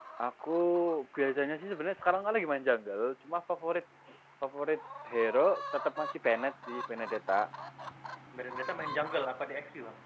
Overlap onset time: none

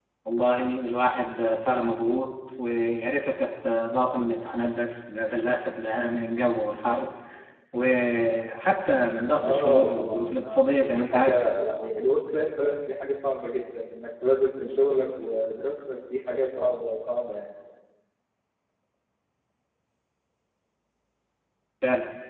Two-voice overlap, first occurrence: 9.4 s

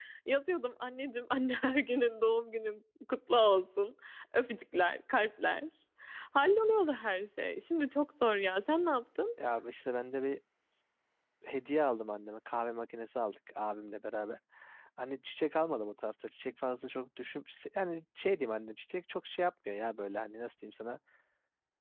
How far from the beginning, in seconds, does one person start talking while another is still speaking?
none

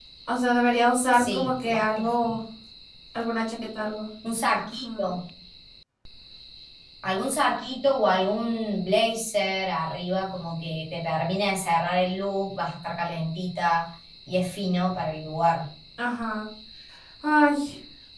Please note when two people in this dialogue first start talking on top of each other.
1.1 s

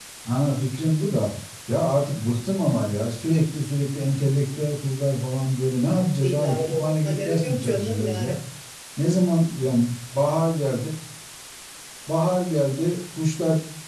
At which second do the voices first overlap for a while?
6.2 s

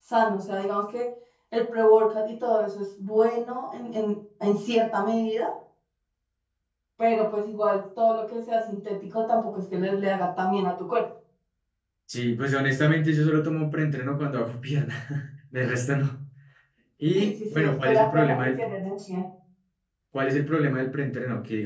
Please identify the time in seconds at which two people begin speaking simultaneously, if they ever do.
17.1 s

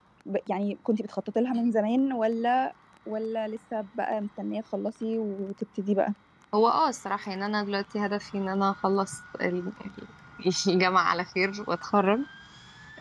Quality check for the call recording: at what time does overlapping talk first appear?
none

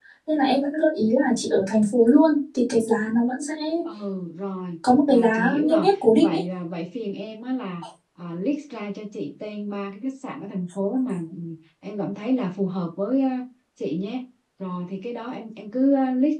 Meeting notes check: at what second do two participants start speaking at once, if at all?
5.1 s

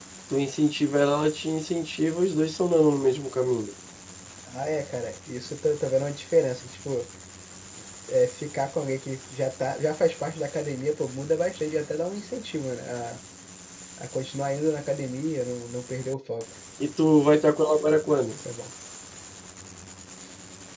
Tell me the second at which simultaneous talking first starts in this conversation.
none

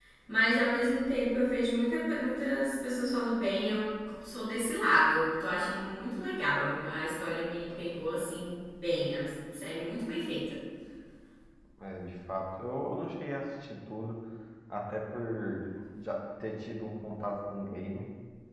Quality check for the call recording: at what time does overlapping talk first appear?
none

